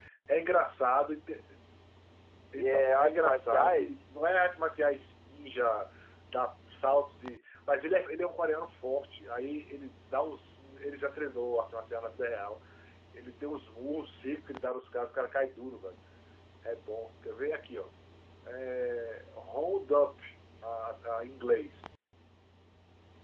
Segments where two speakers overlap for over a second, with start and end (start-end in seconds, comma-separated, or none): 2.6-3.9